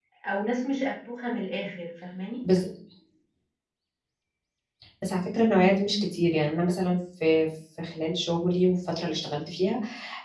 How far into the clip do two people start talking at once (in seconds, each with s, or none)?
none